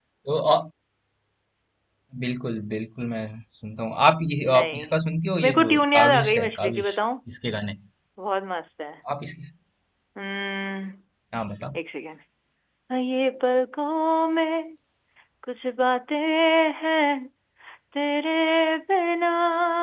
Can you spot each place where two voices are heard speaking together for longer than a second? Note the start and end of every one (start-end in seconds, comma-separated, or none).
5.4-7.0